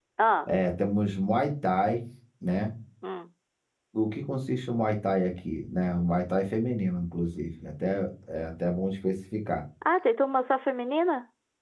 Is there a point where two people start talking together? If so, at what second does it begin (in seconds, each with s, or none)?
none